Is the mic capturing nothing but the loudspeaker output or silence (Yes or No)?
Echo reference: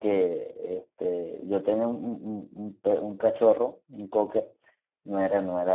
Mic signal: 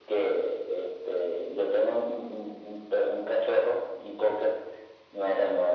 Yes